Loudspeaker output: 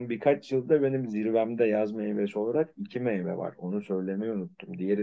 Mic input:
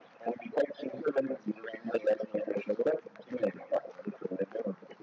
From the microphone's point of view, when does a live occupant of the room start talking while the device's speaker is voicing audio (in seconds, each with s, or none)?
none